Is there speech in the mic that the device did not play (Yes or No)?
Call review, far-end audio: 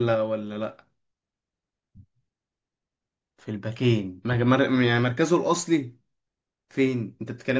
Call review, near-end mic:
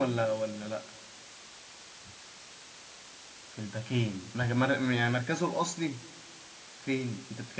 No